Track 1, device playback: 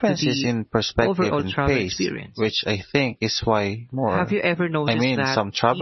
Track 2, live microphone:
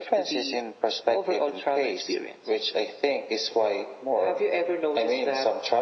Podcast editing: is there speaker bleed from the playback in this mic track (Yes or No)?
Yes